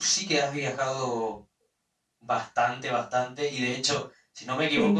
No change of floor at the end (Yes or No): Yes